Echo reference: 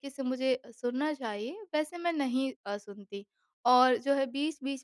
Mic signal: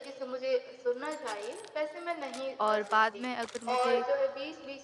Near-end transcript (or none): और बाद में अगर मुझे